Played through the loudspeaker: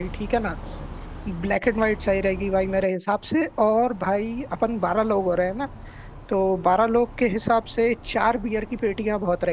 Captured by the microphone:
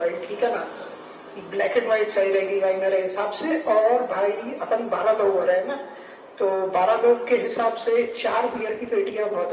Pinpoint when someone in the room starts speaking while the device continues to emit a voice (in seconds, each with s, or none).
none